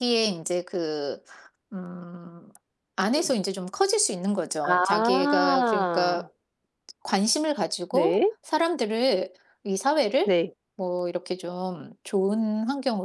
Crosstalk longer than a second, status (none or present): present